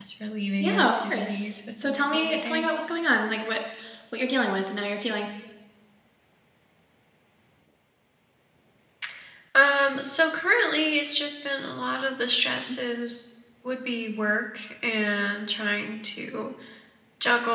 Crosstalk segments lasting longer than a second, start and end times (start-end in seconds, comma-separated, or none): 0.6-2.7